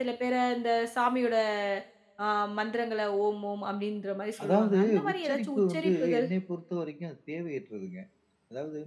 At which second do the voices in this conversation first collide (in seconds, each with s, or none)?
4.3 s